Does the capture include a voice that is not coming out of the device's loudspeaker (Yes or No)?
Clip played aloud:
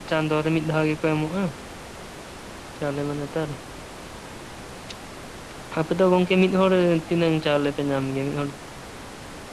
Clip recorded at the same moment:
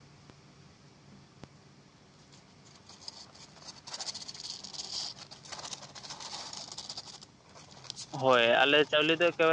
Yes